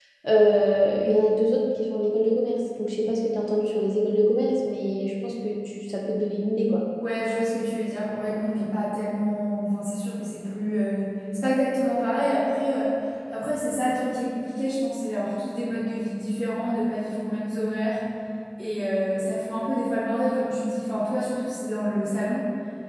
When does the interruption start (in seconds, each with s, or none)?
none